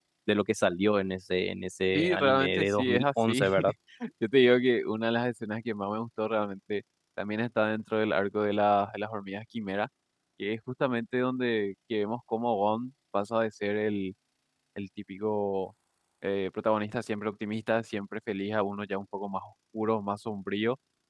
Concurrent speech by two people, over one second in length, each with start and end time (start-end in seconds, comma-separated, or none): 1.9-3.4